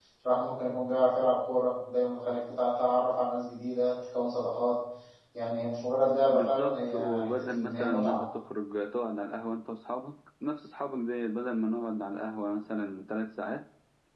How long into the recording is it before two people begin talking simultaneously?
6.3 s

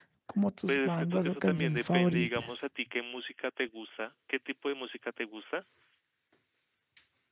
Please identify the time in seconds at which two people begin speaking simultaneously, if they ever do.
0.7 s

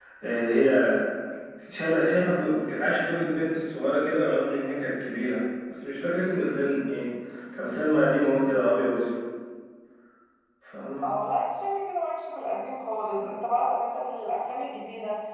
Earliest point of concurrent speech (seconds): none

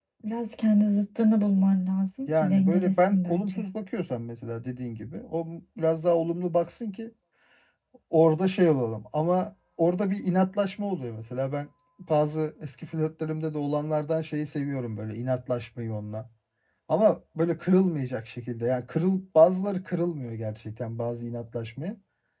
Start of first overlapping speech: 2.3 s

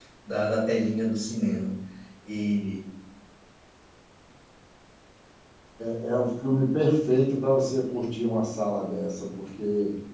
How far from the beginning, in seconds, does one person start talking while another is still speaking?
none

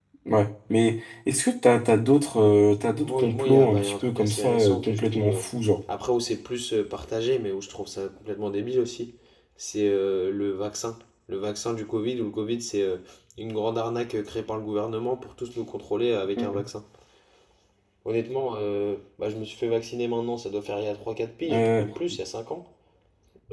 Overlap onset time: 3.0 s

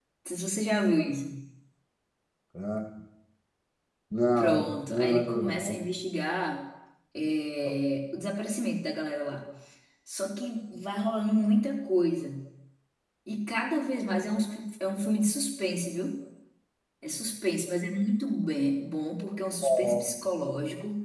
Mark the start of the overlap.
4.4 s

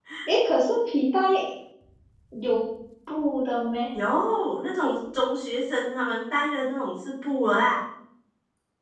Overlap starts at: none

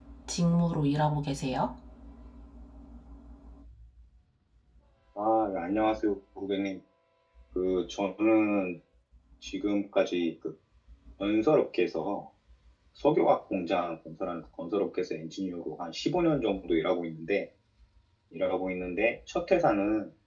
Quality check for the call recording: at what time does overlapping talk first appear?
none

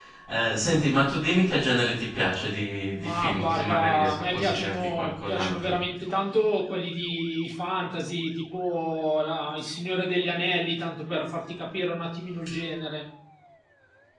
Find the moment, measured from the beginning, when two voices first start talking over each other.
3.0 s

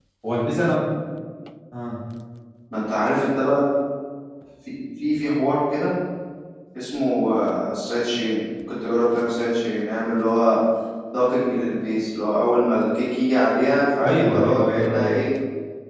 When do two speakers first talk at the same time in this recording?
14.0 s

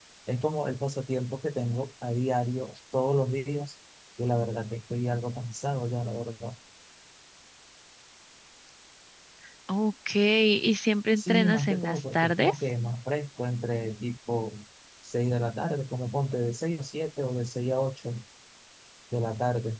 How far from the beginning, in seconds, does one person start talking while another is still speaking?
11.2 s

